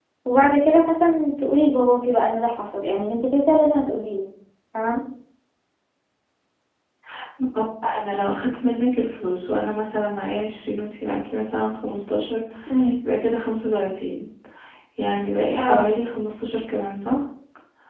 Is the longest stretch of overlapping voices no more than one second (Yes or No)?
Yes